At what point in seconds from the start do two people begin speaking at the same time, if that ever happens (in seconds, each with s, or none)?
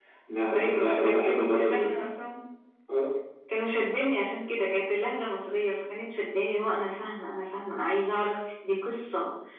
0.5 s